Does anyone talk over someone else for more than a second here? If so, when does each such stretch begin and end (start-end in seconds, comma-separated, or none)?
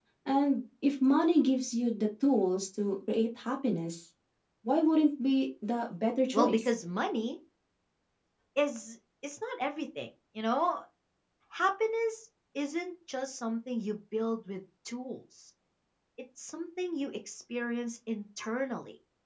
none